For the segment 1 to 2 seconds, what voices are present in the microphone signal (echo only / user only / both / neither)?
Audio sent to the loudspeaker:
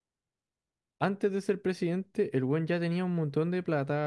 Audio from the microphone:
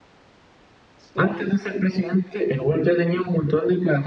both